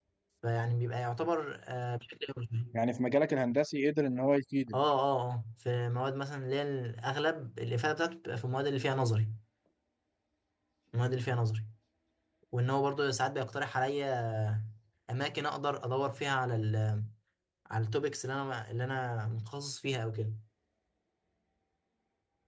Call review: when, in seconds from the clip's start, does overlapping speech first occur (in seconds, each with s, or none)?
none